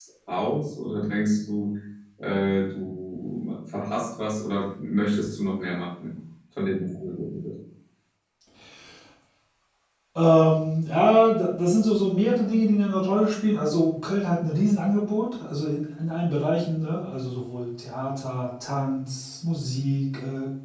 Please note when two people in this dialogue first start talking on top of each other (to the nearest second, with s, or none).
none